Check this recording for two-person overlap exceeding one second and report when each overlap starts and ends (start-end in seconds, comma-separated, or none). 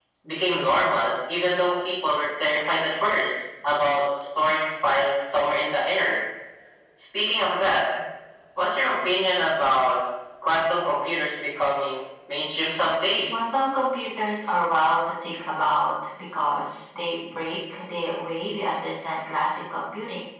none